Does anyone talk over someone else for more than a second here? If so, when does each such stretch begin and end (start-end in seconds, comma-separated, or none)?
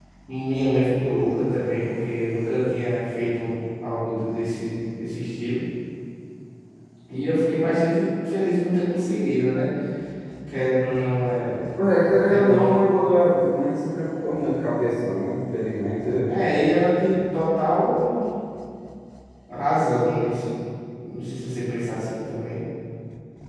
none